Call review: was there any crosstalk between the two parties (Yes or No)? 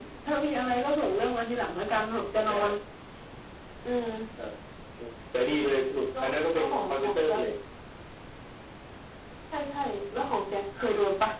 Yes